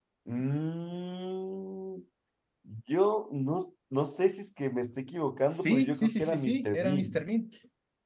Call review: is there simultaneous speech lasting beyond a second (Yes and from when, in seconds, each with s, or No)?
Yes, from 5.5 s